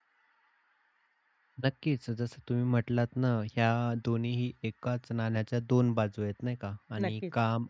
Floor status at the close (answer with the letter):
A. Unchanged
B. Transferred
A